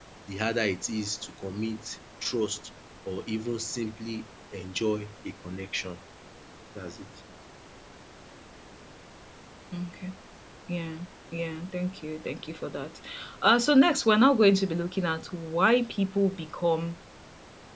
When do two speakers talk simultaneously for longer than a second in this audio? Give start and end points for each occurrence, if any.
none

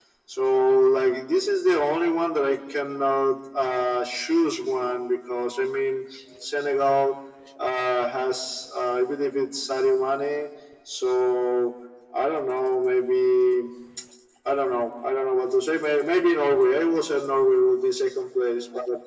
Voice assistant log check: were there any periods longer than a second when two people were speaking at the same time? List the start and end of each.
none

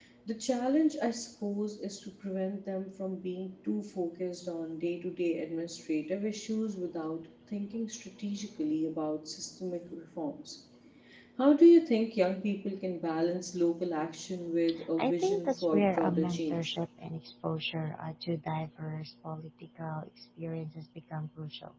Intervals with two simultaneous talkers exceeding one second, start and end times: 15.0-16.7

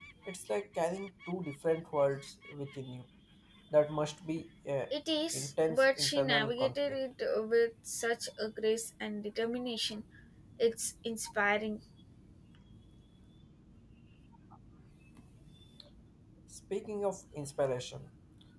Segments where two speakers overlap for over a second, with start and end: 5.3-7.0

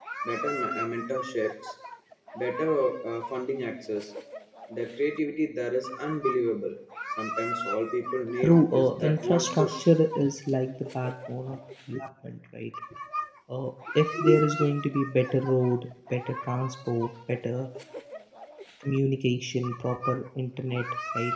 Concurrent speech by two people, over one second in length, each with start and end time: 8.4-9.9

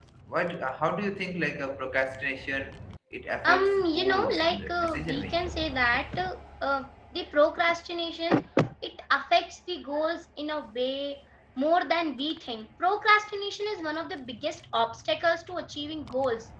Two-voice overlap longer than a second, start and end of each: 3.5-5.5

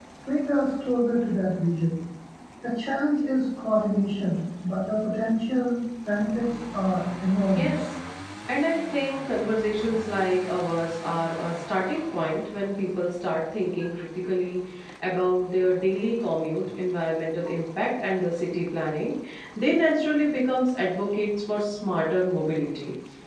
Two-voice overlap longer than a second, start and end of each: none

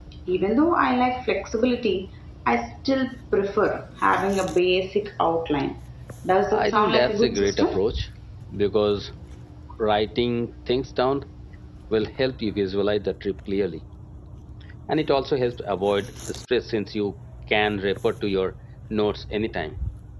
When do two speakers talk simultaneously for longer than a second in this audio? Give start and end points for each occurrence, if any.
6.5-7.8

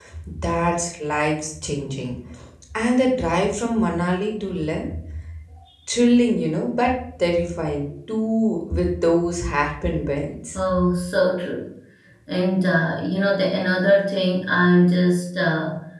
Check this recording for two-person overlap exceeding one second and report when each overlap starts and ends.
none

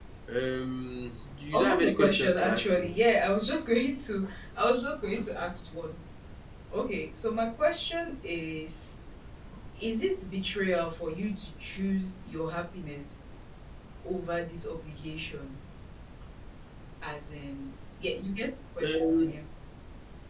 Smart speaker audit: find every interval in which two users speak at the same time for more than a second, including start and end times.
1.5-3.0

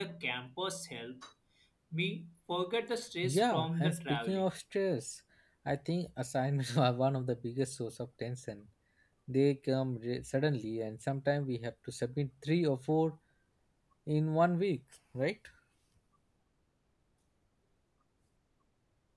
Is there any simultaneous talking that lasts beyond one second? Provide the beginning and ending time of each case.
3.2-4.4

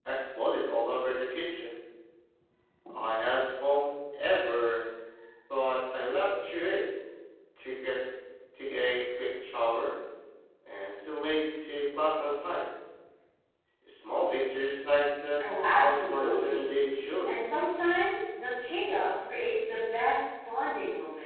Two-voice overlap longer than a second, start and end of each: 15.7-16.9

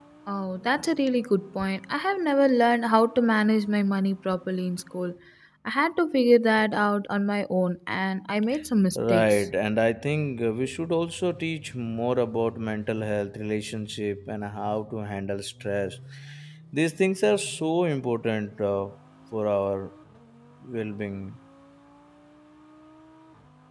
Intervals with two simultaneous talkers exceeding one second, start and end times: none

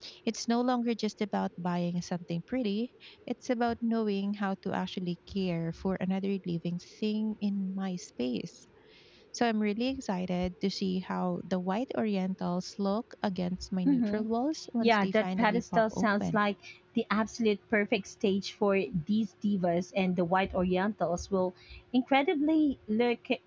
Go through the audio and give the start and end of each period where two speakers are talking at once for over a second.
14.8-16.4

